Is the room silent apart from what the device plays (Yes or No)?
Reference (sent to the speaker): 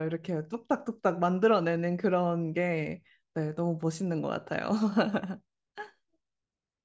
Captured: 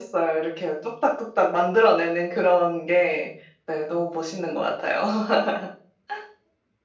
Yes